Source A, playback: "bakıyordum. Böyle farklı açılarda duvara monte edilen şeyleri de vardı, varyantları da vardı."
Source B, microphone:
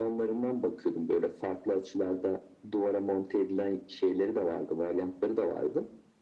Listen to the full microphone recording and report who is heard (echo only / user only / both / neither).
echo only